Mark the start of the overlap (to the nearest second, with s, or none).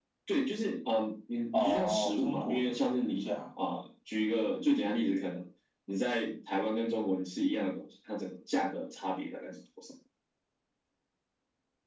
2 s